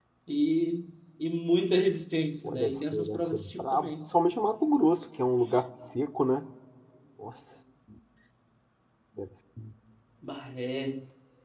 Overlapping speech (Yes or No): Yes